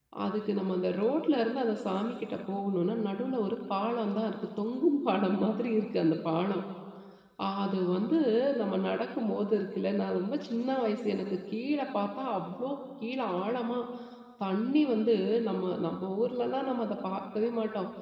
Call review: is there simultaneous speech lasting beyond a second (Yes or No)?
No